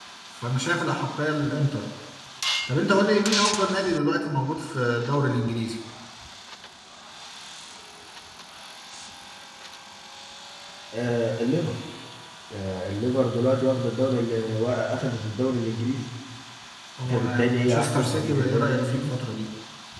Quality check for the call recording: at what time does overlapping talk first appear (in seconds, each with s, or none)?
17.1 s